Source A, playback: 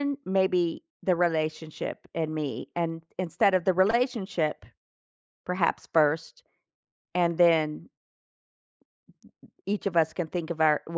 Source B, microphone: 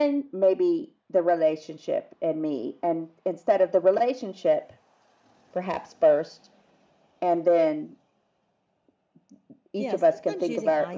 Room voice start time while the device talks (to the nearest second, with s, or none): 10 s